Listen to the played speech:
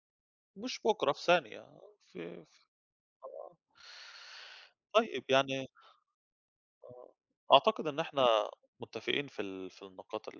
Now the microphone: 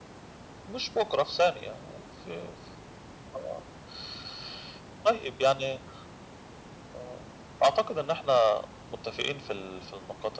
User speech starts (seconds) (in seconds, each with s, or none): none